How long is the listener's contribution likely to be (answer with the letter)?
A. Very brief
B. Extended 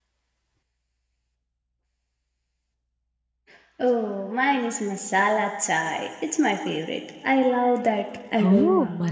B